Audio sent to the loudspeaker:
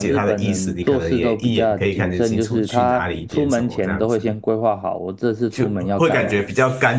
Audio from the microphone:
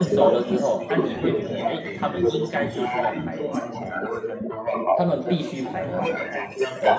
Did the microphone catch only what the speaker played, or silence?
No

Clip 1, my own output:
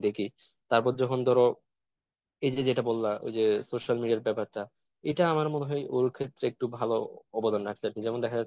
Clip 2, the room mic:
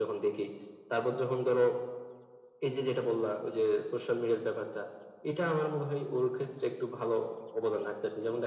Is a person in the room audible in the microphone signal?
No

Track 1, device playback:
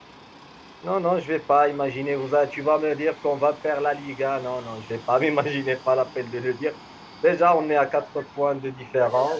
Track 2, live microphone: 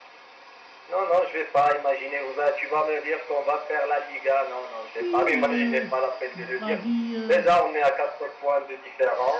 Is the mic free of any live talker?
No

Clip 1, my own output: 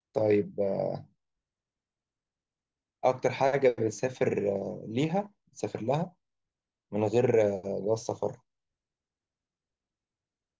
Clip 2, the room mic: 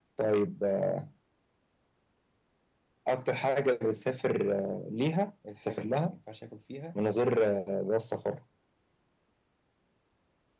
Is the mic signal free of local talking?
No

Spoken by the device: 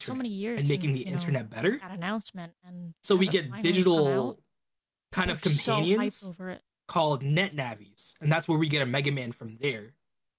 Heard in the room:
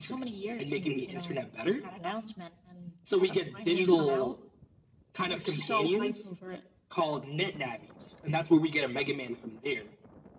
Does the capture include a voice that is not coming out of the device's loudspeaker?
No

